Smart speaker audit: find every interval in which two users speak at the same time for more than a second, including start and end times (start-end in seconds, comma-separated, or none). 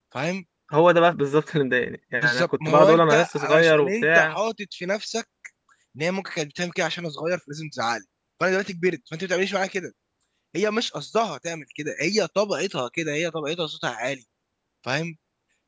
2.2-4.3